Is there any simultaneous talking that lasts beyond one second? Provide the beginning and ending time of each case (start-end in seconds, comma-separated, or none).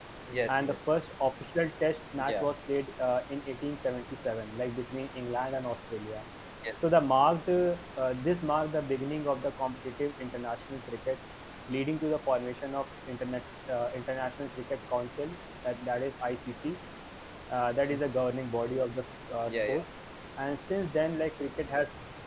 none